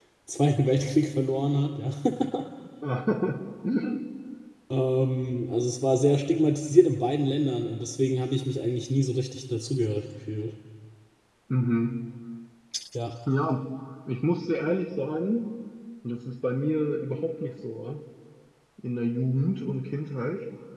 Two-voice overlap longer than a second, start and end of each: none

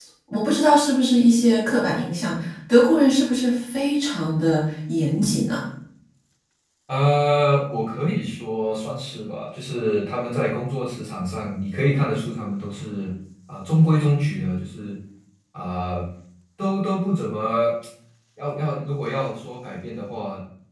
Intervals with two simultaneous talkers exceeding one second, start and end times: none

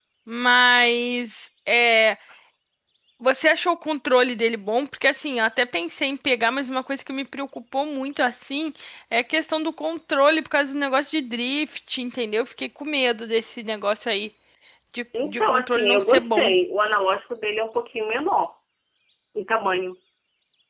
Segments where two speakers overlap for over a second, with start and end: 15.2-16.5

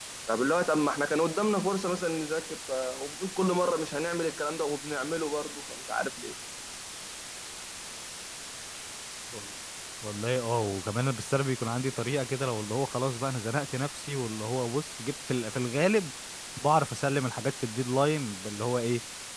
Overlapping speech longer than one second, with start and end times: none

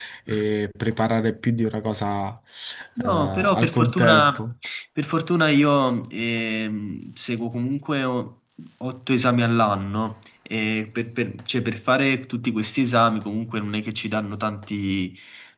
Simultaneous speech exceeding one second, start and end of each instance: 3.0-4.4

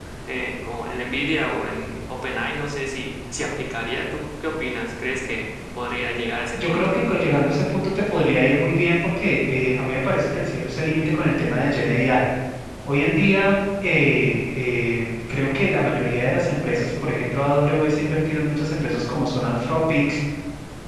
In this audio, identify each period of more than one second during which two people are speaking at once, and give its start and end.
none

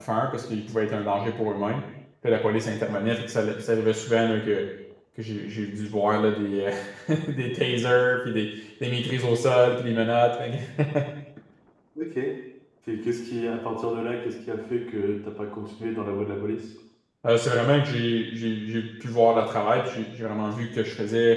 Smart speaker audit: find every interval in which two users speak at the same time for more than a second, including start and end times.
none

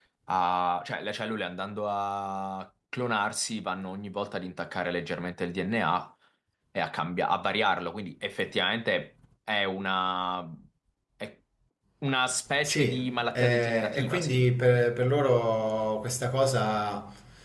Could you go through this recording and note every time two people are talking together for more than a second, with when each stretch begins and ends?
12.6-14.4

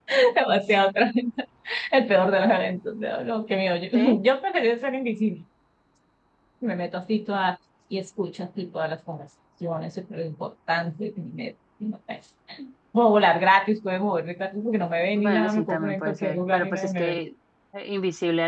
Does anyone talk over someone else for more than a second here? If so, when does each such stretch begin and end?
15.2-17.2

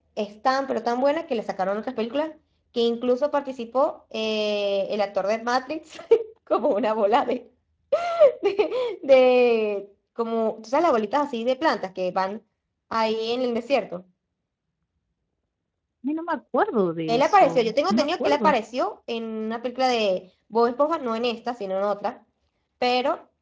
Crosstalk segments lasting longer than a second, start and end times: 17.1-18.5

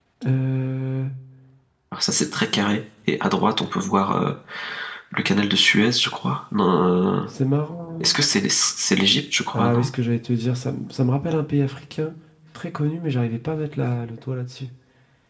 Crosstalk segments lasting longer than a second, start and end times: none

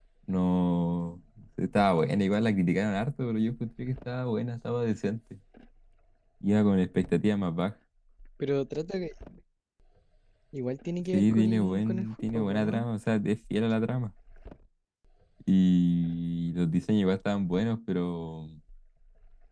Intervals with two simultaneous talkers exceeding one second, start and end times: 11.1-12.9

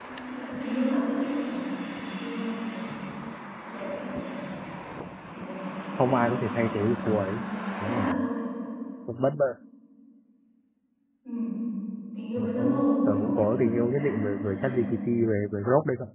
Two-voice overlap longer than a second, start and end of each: 6.0-7.4, 13.1-14.7

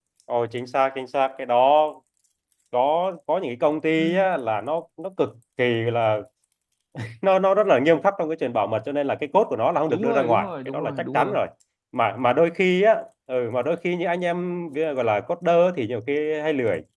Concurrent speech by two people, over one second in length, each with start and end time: 9.9-11.4

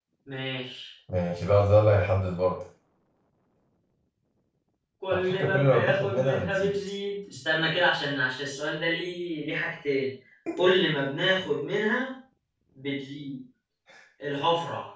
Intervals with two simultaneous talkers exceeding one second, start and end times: 5.1-6.7

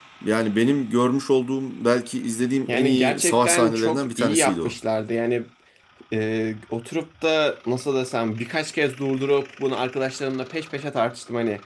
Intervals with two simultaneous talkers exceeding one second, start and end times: 2.7-4.7

